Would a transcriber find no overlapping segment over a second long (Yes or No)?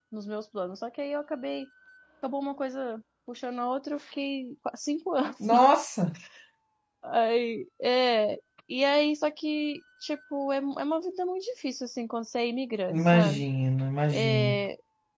Yes